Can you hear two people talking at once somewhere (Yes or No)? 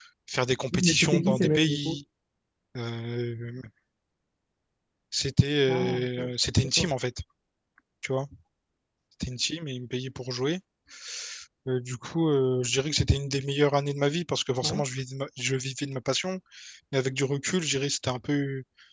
Yes